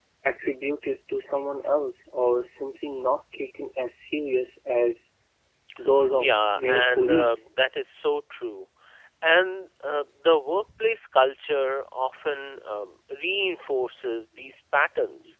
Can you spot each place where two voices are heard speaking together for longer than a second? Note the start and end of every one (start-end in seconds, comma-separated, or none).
6.2-7.4